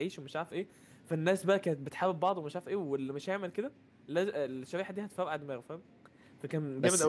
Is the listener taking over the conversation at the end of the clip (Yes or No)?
Yes